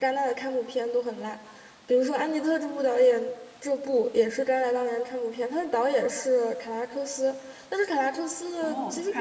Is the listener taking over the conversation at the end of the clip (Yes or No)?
Yes